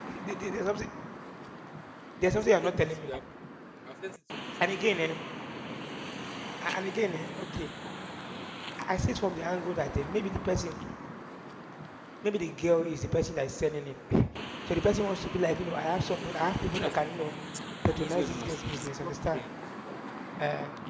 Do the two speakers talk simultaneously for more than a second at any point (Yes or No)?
Yes